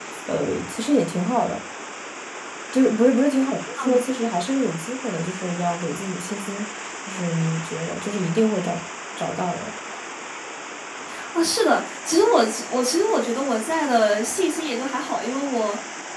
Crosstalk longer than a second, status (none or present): none